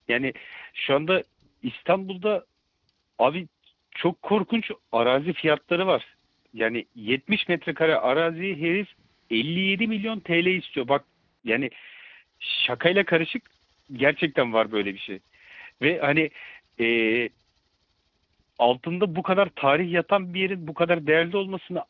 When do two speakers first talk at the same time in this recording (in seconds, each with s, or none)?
none